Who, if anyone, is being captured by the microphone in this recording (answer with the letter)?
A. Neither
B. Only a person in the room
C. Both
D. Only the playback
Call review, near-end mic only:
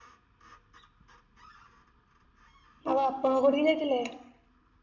B